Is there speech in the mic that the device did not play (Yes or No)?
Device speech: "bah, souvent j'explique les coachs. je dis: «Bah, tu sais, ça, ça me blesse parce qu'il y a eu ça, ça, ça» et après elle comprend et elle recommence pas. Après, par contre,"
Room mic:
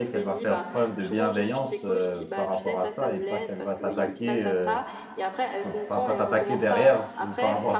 Yes